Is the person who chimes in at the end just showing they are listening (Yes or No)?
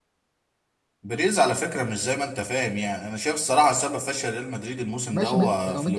No